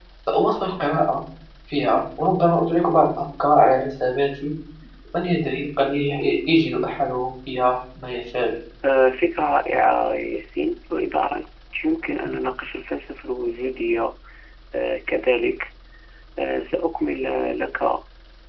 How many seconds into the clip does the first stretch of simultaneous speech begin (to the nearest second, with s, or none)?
none